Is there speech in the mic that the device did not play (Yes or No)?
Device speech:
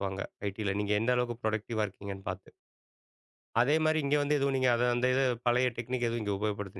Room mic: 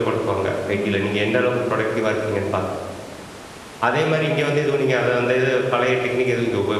Yes